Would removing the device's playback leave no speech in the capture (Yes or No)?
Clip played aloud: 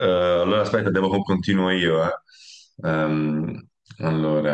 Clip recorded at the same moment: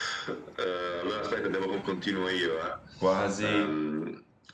No